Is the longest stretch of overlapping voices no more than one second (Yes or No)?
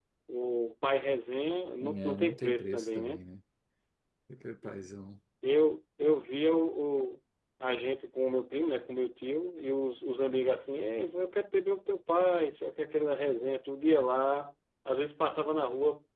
No